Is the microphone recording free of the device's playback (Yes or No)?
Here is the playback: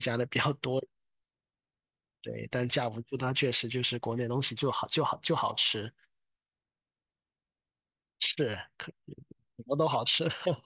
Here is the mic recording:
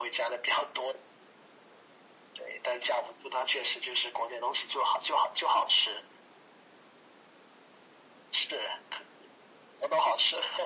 No